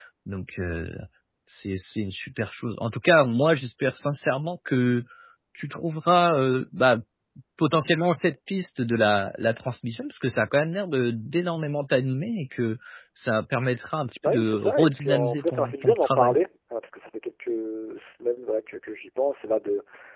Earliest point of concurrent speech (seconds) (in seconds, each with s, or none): 14.2 s